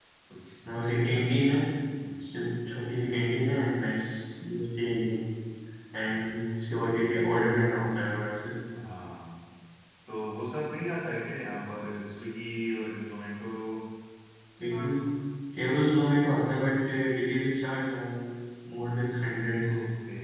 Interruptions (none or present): none